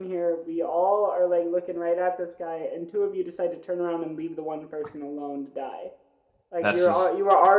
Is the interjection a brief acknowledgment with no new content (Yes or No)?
Yes